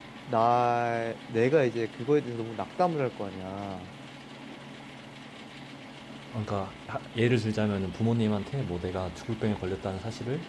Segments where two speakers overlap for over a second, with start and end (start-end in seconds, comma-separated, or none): none